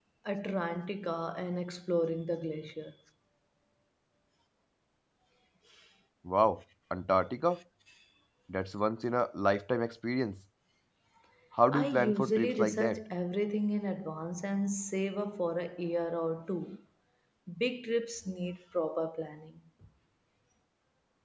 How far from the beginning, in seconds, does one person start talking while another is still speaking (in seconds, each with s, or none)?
11.7 s